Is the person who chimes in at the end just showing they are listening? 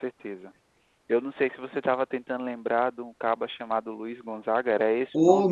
No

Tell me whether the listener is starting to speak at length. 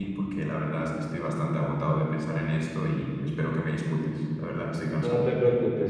Yes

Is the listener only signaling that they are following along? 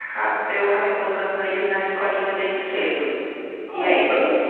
No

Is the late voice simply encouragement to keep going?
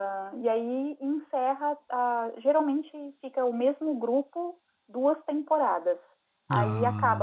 Yes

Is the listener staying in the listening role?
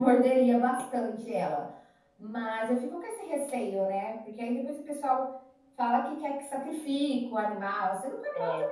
Yes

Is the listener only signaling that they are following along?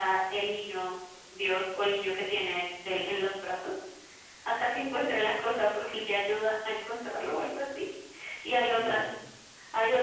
Yes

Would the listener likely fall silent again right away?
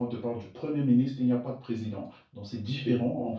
Yes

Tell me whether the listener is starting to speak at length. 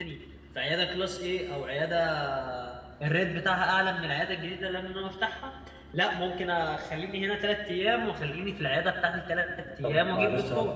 Yes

